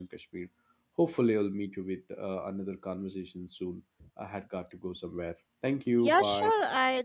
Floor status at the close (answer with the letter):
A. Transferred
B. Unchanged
A